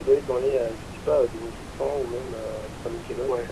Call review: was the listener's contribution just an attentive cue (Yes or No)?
No